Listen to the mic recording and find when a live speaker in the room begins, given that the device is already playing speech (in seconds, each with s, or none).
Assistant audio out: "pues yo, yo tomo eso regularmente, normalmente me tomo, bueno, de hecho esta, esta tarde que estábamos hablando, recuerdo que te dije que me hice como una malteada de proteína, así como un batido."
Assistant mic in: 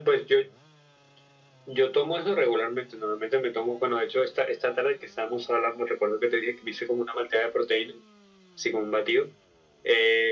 none